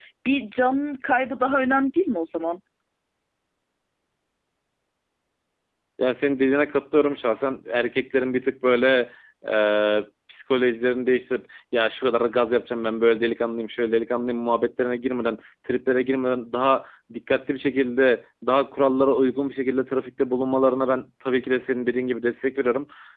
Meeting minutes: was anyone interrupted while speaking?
No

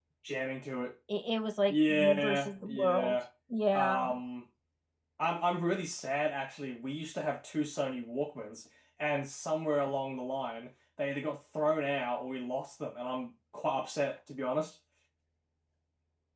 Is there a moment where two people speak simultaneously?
Yes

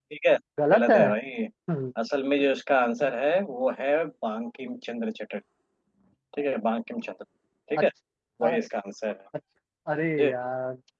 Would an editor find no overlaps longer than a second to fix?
Yes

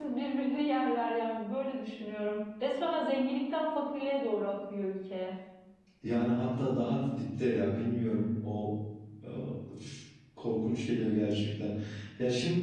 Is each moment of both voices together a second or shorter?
Yes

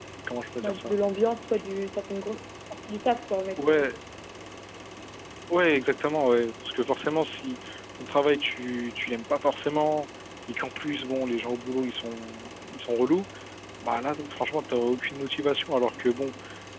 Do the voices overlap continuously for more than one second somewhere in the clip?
No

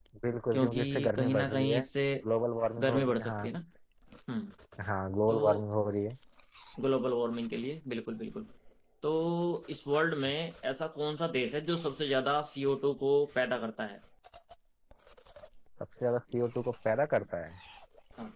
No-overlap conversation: No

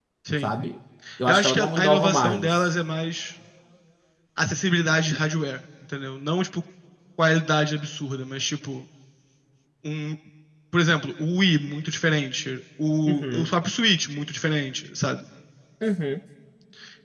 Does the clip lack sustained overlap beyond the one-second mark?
No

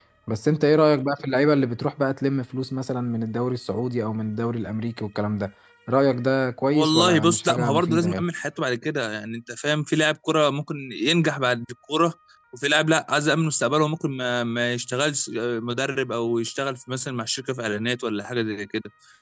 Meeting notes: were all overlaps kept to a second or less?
No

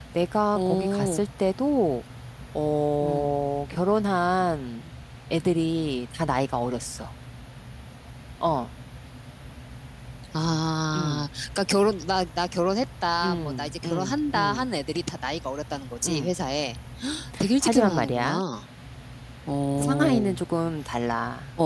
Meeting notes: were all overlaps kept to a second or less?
No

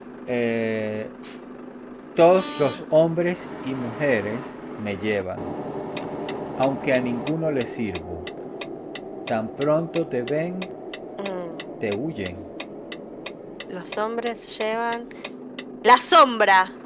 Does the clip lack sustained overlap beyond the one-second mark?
Yes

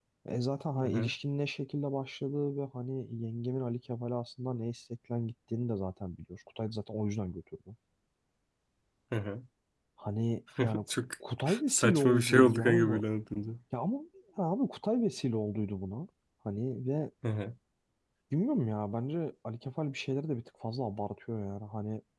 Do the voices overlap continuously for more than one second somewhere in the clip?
Yes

